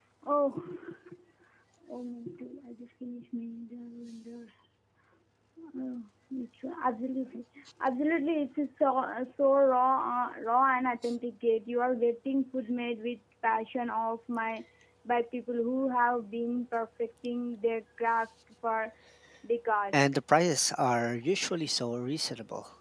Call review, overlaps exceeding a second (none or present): none